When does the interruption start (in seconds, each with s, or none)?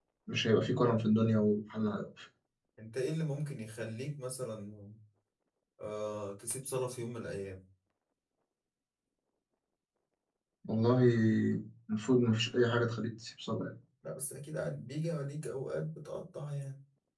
none